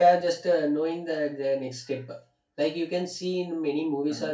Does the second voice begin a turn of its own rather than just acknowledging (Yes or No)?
No